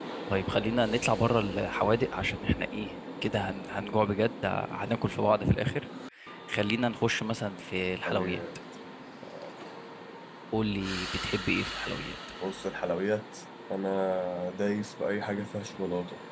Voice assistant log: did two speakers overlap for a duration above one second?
No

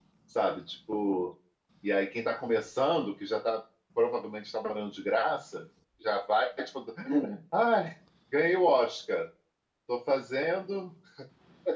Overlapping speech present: No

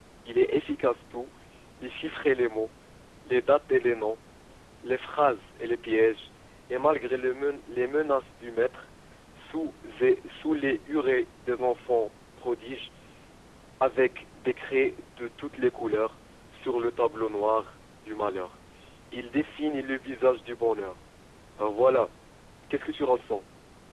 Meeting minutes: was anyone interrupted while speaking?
No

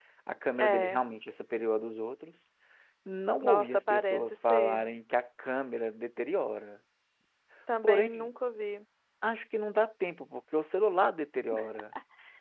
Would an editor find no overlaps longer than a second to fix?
No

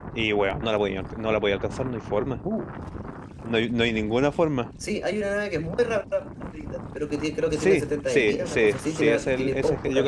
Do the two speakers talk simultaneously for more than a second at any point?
Yes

